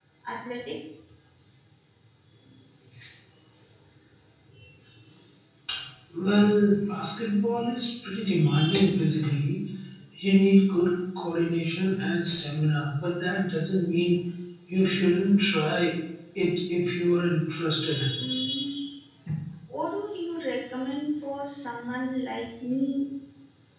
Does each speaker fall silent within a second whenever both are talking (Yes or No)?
Yes